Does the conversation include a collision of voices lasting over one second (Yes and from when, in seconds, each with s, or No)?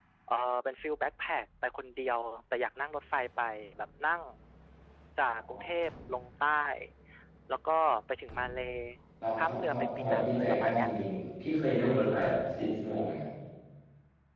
Yes, from 9.4 s